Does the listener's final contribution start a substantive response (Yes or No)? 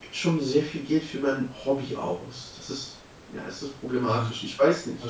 Yes